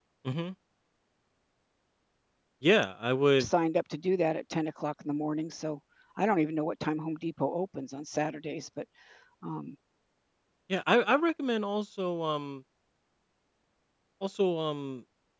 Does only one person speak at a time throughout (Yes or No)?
Yes